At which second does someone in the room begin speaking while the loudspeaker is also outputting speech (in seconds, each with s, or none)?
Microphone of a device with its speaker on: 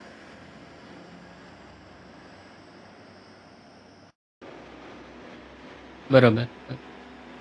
6.1 s